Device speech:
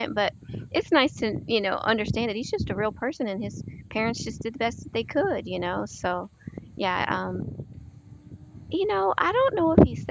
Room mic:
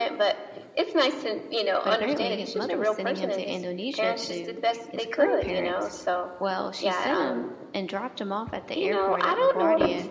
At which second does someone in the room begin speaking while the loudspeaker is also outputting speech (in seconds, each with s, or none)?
1.8 s